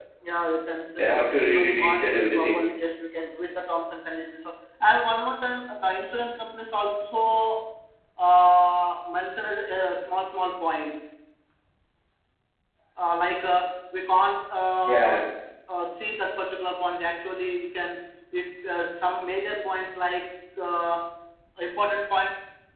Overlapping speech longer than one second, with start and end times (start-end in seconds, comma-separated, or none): 1.0-2.6